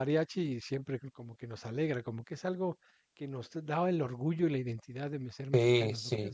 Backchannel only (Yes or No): No